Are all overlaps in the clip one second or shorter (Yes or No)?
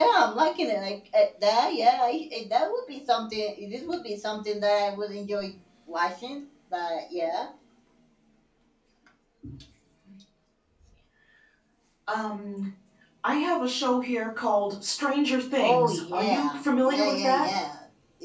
No